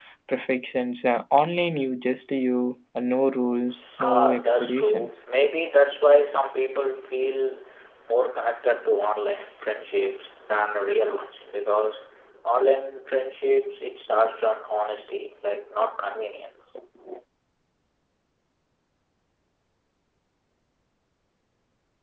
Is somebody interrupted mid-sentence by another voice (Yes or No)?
Yes